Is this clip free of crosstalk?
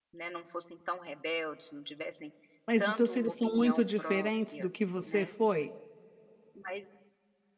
No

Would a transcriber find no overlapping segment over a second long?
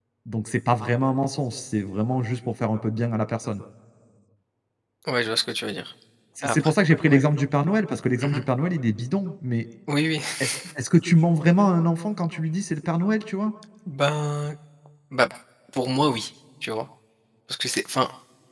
Yes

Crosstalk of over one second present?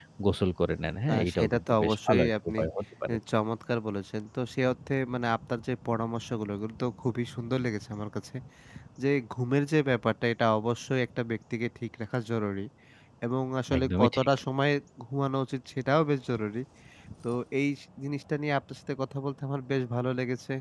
Yes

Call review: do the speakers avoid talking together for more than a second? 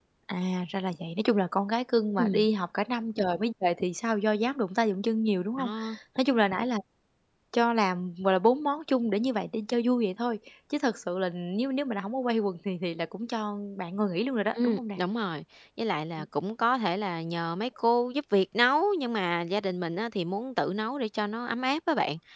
Yes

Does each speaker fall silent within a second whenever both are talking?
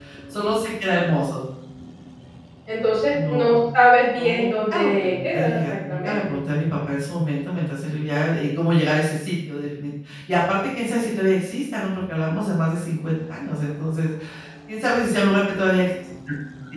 No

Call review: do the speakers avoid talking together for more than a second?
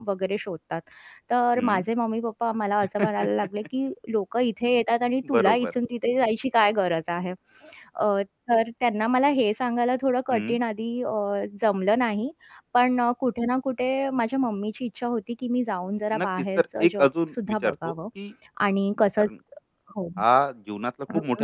No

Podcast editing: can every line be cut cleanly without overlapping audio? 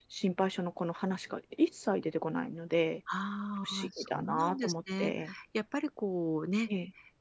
No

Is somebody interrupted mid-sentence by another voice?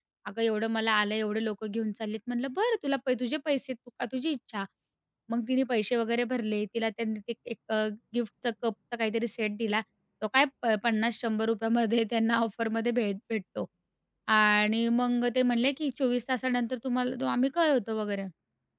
No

